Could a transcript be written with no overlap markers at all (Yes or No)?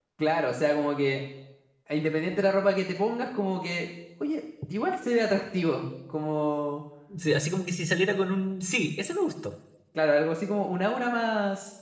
Yes